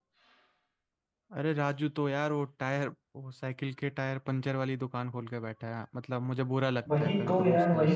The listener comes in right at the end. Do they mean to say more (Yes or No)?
Yes